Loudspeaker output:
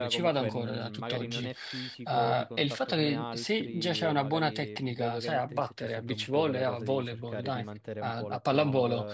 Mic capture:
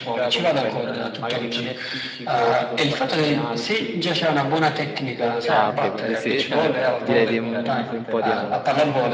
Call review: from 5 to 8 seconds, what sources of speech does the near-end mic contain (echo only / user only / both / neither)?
both